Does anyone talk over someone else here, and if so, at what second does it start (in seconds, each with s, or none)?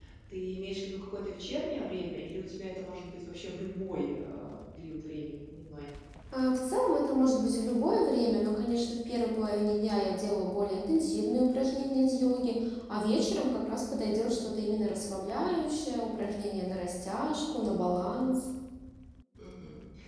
none